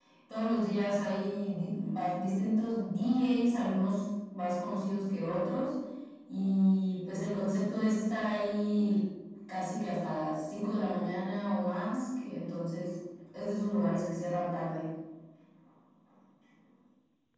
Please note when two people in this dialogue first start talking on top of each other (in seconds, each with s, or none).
none